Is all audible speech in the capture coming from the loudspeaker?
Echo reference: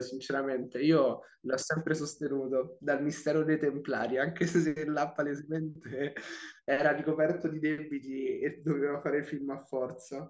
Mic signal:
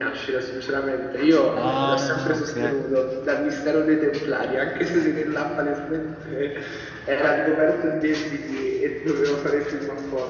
No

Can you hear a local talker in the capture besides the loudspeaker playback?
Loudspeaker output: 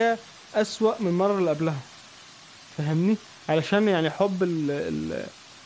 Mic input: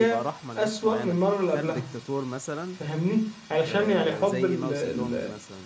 Yes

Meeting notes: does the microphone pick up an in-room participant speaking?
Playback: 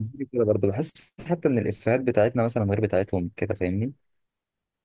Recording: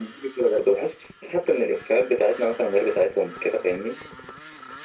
No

